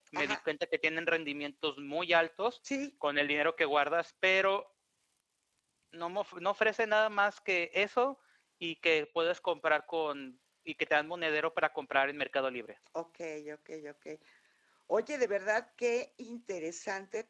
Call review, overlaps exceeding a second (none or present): none